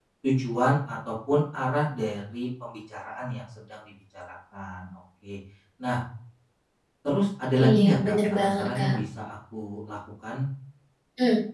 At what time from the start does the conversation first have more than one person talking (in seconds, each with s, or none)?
7.7 s